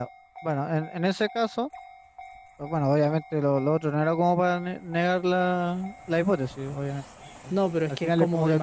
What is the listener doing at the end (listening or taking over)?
taking over